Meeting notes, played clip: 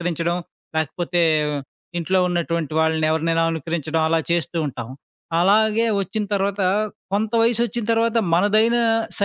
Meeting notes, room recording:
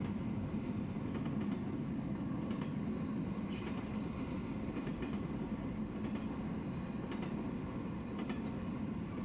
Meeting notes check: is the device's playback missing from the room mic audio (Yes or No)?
Yes